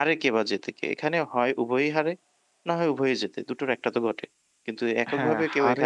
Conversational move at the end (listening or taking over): taking over